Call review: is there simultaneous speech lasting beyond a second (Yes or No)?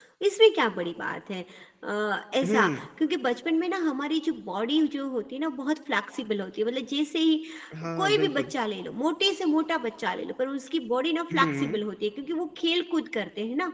No